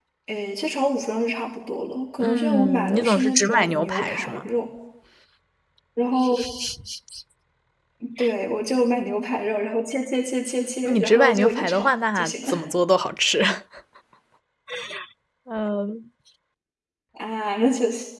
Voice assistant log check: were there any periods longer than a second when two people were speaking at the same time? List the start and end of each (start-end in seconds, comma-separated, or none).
2.2-4.4, 10.8-12.5